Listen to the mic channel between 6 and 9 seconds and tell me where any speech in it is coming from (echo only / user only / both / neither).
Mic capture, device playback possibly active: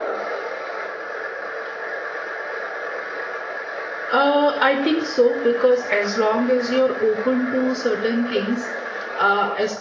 user only